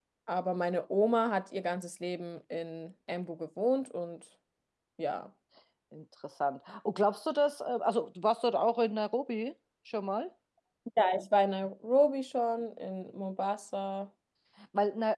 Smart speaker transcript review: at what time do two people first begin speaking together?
none

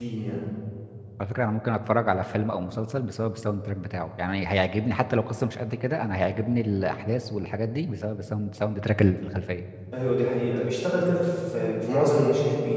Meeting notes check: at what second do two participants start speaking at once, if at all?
none

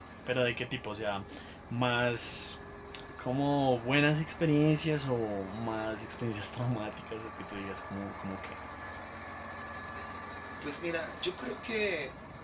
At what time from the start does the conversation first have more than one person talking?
none

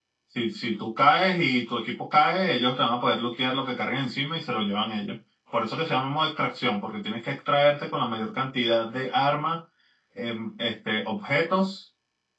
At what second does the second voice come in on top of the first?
none

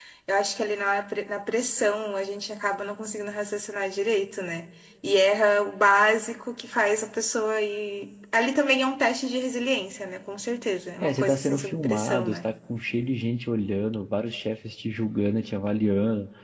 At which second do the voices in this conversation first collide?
11.0 s

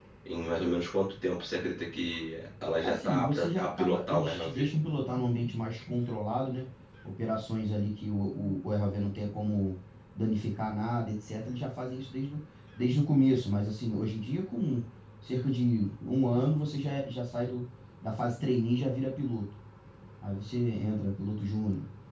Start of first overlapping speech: 2.8 s

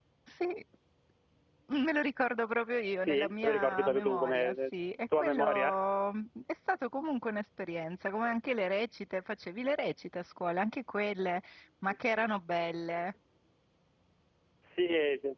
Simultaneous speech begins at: 3.0 s

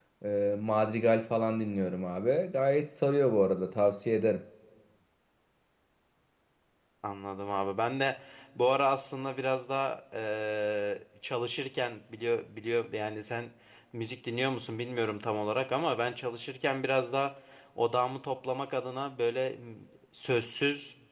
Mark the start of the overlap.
none

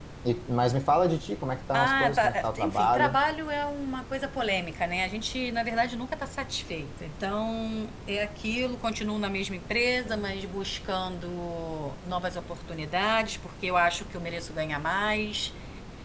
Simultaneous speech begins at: 1.7 s

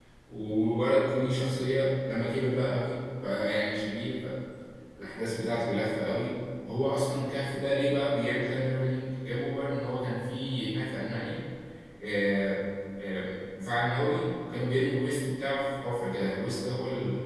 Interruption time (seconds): none

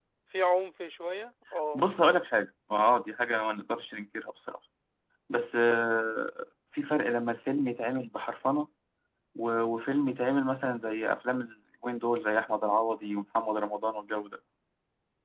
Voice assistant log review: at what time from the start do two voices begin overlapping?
none

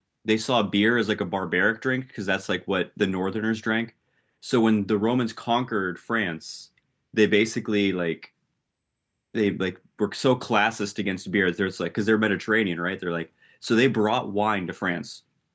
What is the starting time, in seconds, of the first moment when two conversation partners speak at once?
none

